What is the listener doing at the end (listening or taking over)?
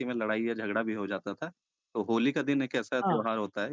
listening